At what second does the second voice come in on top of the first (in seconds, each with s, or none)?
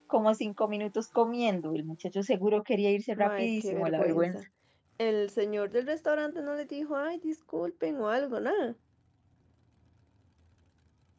3.2 s